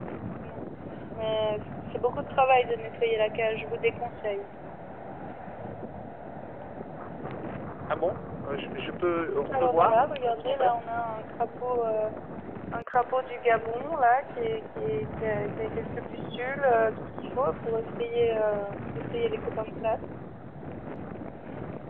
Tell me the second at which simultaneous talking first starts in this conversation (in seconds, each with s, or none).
9.5 s